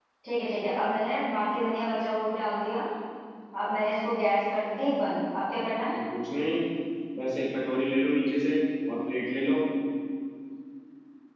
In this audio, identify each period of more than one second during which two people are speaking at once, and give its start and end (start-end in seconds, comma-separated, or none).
none